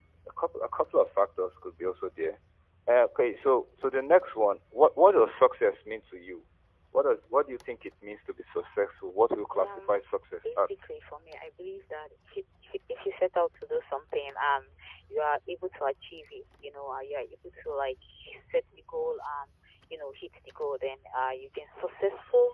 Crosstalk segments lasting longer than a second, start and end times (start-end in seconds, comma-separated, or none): none